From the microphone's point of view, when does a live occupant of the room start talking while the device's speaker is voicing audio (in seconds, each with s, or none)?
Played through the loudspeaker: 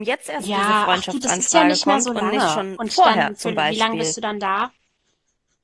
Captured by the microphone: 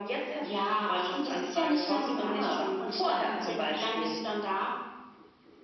none